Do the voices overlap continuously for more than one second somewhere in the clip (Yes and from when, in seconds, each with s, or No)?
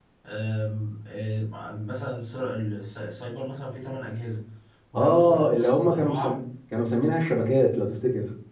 Yes, from 5.0 s